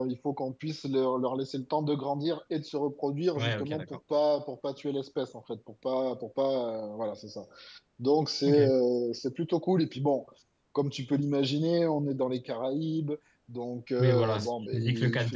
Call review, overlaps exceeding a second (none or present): present